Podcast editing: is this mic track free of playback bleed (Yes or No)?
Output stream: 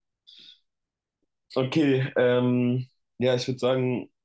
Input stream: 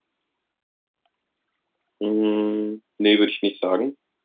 Yes